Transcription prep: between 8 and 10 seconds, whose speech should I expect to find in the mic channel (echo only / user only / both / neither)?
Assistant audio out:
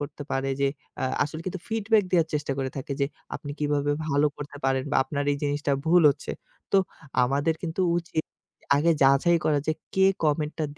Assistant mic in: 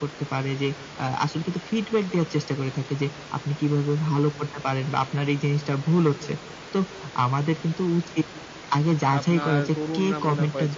both